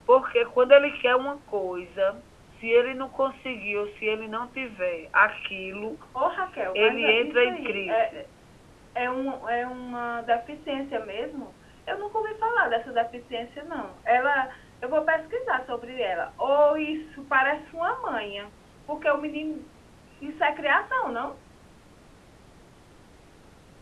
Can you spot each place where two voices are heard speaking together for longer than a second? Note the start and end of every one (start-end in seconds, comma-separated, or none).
6.8-8.1